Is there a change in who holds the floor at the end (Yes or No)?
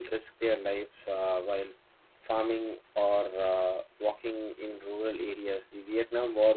No